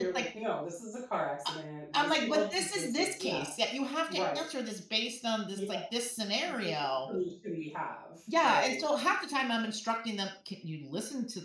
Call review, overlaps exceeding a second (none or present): present